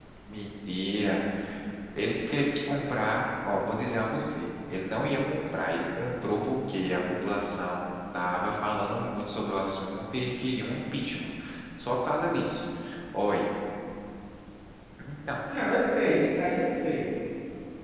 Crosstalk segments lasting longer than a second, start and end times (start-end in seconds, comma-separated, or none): none